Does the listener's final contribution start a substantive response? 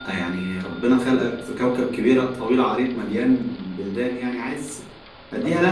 Yes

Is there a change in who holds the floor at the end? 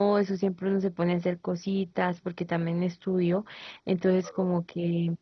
No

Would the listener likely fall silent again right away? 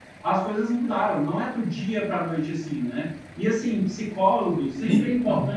Yes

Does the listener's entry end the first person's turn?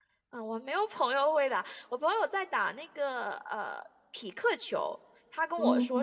No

